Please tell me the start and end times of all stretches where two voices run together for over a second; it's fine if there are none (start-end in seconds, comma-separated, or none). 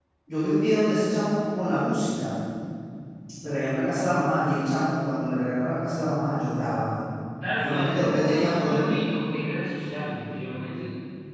7.6-8.8